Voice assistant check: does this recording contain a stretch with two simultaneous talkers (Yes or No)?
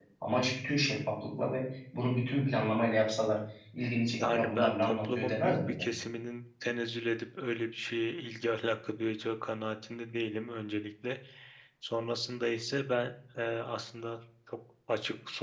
Yes